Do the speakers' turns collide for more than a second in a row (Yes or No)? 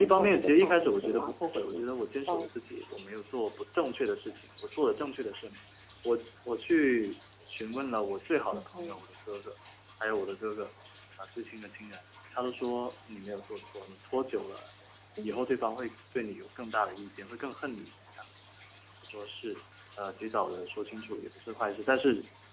Yes